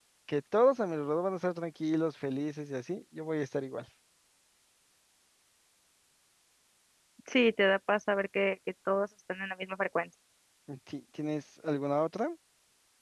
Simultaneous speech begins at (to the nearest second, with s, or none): none